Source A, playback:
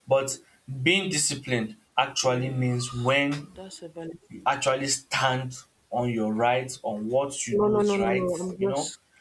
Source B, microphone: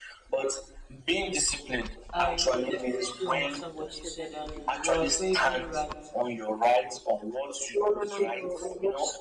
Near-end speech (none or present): present